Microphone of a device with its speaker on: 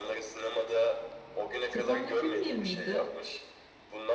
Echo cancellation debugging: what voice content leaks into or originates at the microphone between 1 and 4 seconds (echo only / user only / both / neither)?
both